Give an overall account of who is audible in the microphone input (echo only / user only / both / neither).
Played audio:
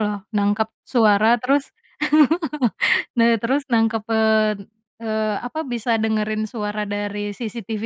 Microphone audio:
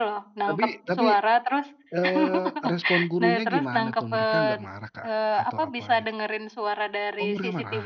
both